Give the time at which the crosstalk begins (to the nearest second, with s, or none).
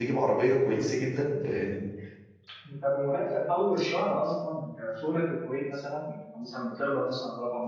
none